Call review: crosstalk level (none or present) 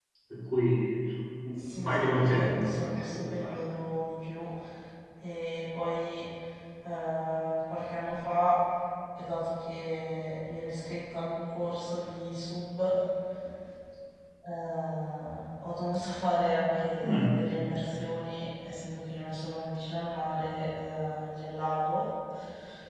present